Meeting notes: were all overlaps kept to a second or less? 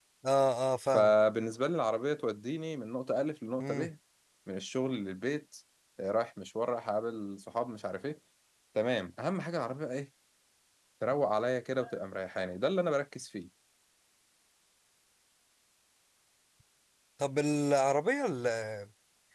Yes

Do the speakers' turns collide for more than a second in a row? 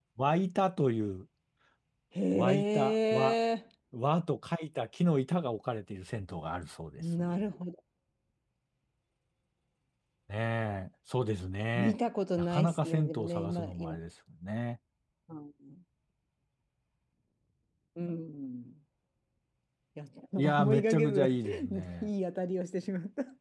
Yes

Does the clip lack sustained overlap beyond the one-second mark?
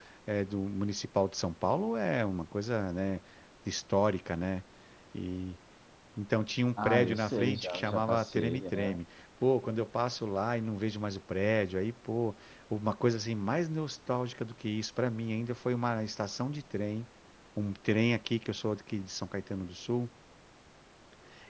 No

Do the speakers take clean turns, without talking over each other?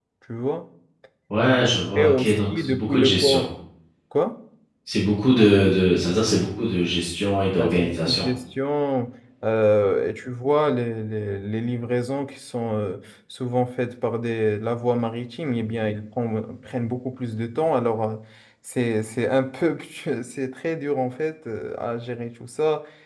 No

